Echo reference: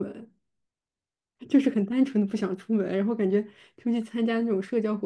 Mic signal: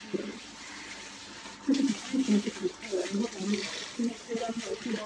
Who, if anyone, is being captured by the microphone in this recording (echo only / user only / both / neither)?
echo only